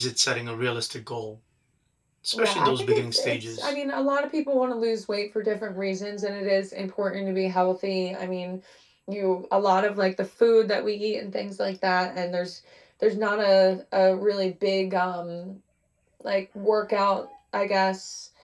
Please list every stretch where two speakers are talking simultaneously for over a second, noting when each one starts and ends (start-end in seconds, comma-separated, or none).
2.4-3.7